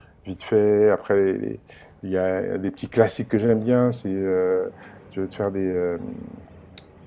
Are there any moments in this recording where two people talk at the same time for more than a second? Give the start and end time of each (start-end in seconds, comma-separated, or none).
none